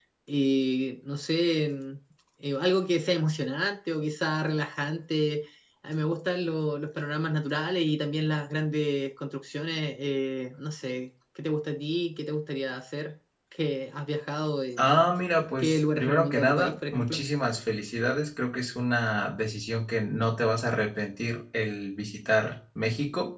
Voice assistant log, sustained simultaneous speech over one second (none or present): present